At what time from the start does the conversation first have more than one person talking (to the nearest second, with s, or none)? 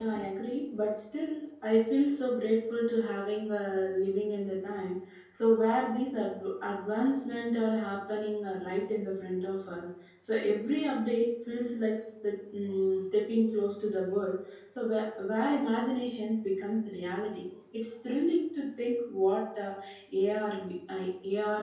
none